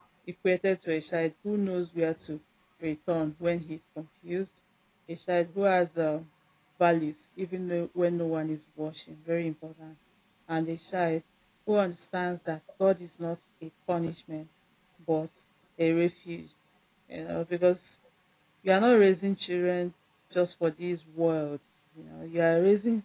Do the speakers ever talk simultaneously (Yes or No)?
No